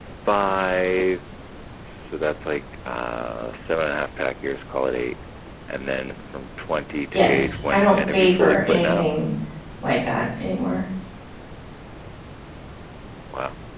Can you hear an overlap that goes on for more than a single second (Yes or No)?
Yes